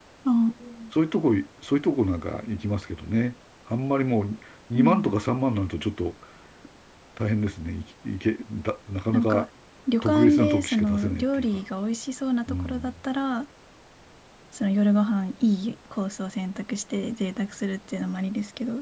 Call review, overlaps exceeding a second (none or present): present